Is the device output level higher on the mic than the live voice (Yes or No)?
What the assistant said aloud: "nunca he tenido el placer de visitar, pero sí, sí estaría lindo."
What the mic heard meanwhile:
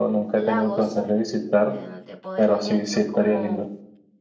Yes